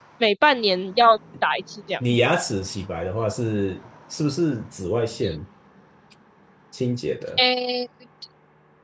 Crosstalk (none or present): none